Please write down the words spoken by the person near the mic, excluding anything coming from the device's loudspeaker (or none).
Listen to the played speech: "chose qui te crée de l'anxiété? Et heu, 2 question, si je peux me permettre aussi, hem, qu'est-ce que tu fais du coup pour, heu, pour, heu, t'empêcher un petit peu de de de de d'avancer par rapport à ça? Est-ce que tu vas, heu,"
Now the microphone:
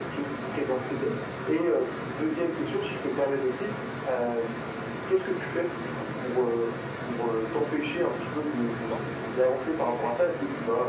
D'accord.